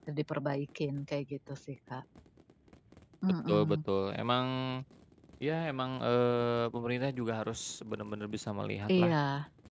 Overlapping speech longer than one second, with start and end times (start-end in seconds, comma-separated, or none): none